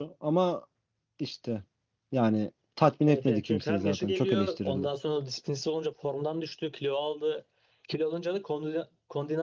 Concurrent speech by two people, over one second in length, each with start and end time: 3.1-4.9

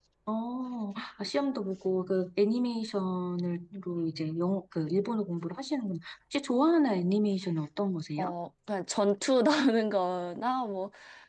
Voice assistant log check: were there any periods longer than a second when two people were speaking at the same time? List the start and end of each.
none

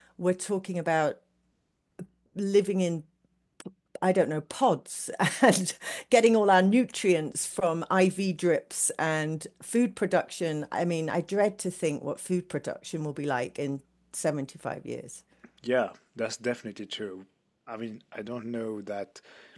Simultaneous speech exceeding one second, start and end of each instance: none

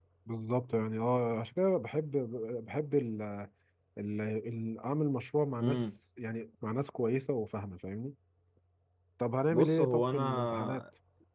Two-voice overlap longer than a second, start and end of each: 9.5-10.8

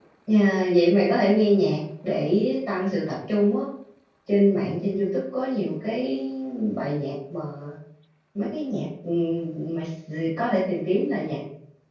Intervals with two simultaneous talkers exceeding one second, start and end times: none

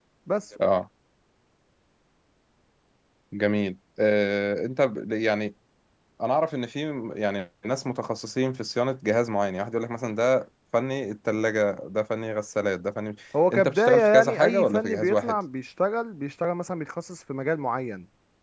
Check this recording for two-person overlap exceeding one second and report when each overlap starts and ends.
13.5-15.4

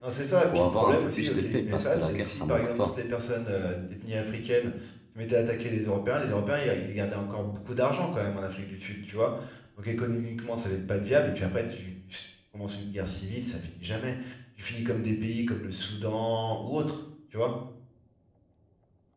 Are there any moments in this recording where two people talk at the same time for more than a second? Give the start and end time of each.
0.5-3.0

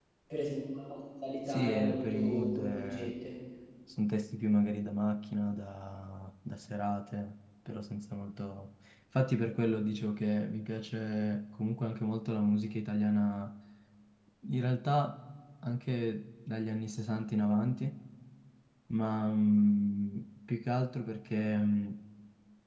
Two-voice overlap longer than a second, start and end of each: 1.5-3.1

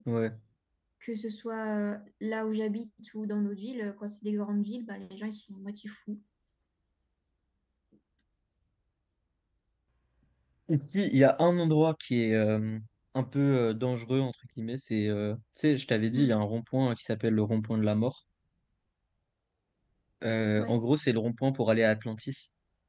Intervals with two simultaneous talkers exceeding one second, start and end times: none

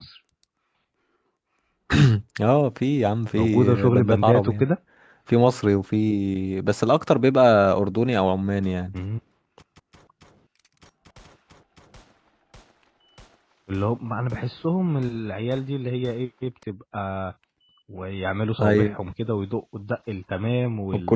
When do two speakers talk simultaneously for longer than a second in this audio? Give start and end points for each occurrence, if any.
3.3-4.7

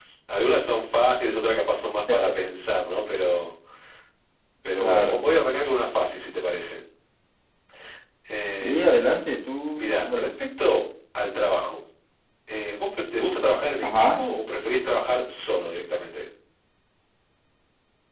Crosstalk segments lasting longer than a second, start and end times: none

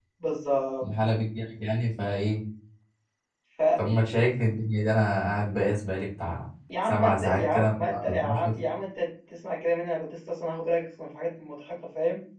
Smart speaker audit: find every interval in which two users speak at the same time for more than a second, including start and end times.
6.8-8.5

